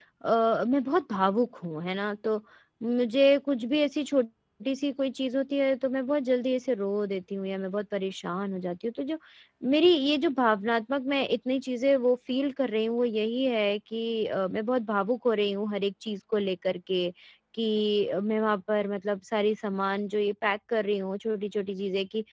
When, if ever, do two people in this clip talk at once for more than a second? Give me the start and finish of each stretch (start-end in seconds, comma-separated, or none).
none